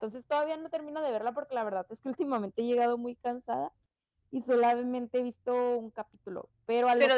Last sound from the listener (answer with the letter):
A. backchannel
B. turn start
B